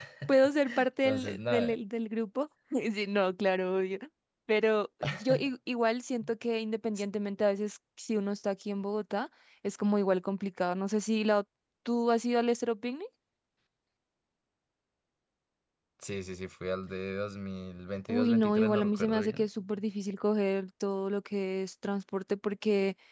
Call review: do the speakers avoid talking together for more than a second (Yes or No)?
No